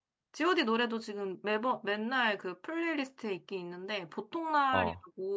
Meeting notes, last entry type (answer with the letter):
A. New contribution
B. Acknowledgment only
B